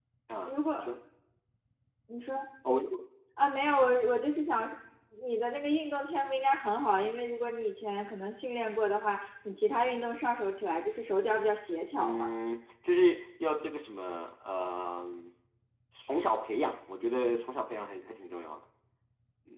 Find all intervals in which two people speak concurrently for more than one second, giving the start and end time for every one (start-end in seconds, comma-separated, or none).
none